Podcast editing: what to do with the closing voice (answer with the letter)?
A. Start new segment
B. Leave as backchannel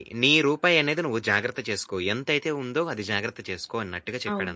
A